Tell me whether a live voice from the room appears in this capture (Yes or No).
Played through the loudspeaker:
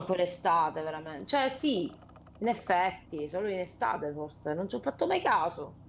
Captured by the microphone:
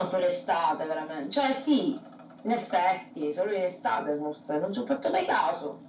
No